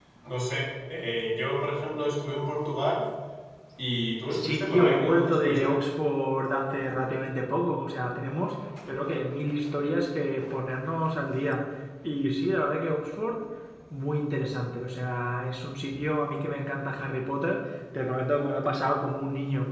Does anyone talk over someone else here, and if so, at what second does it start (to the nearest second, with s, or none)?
4 s